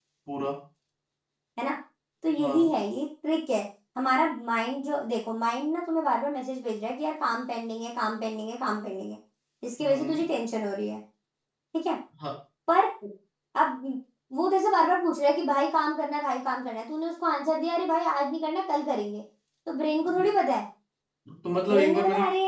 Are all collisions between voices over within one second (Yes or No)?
Yes